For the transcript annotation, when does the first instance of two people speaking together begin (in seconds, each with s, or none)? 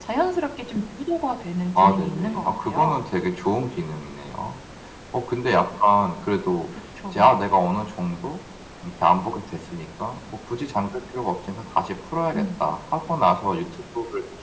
1.8 s